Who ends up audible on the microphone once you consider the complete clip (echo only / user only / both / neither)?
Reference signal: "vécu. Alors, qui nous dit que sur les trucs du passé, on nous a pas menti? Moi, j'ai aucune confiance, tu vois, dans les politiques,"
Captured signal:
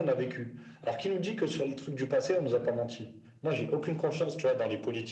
echo only